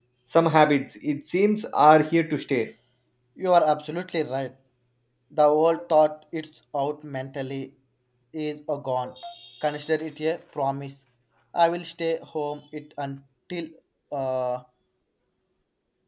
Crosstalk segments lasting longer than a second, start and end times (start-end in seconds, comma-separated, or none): none